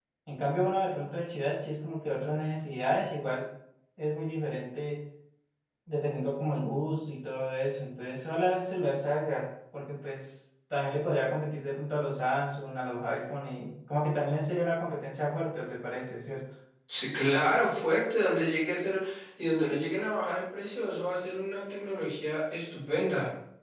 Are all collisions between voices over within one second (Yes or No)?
Yes